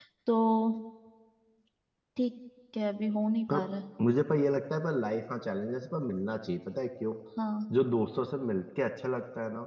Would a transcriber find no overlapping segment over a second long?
Yes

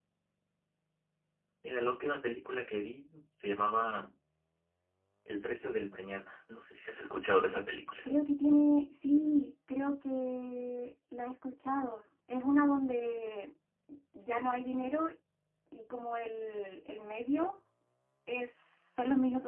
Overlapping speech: No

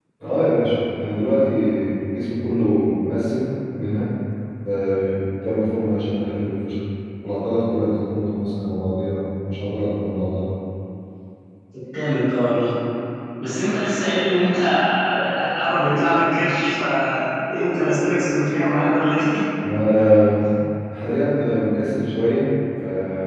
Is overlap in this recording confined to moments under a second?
Yes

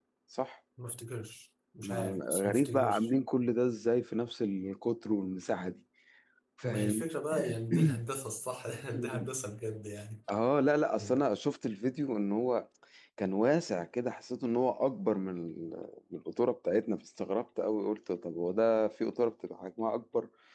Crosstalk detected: Yes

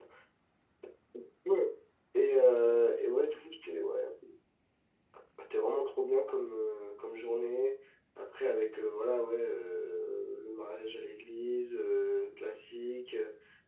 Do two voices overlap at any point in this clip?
No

